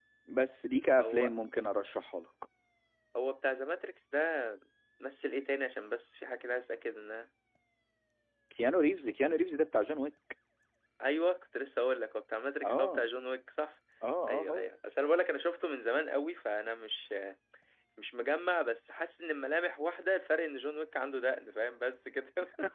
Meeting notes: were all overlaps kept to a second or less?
Yes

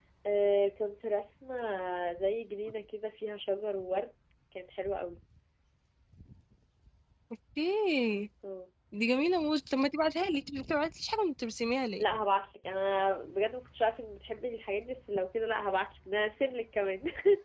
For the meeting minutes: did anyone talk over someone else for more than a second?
No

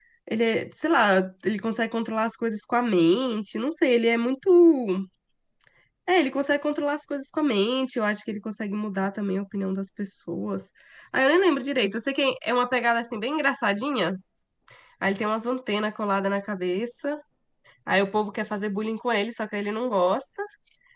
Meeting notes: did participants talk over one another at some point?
No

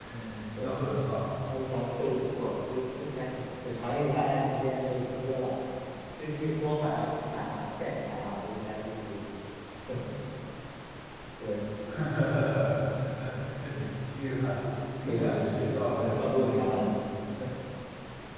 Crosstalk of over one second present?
Yes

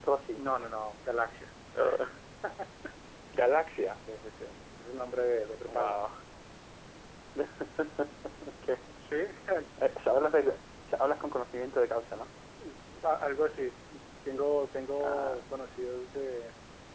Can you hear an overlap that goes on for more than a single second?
No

